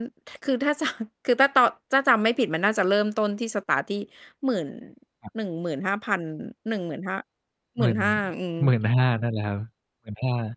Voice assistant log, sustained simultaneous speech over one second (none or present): none